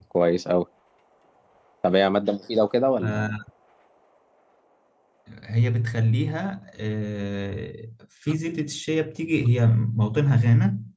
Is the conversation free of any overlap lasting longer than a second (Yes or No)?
Yes